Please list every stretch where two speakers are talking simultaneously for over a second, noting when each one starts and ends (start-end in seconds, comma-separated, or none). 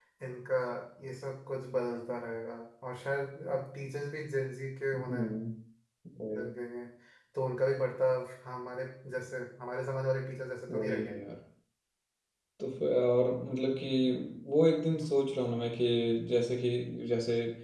none